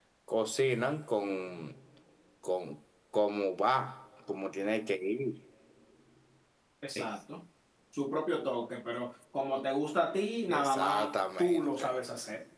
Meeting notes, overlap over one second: present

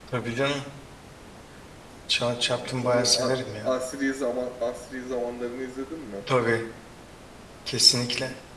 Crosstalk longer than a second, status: present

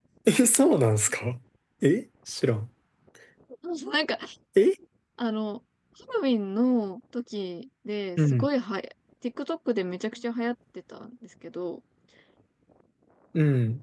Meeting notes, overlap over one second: none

